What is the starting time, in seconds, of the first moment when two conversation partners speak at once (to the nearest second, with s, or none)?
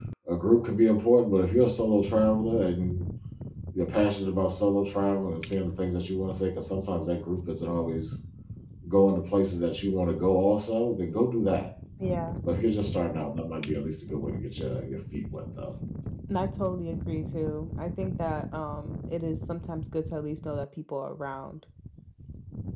none